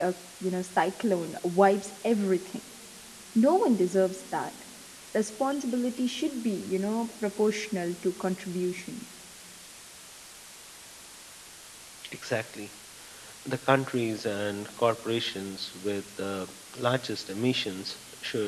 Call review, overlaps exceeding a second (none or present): none